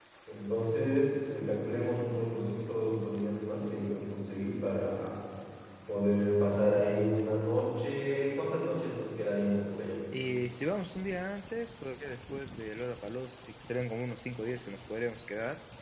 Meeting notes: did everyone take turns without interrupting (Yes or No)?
Yes